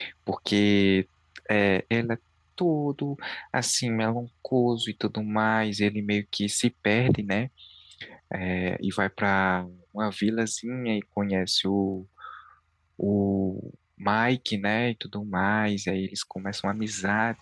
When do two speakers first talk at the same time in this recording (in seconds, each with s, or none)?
none